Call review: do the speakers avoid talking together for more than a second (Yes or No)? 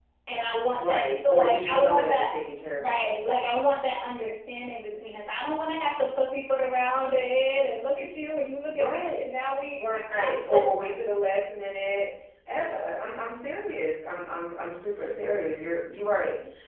No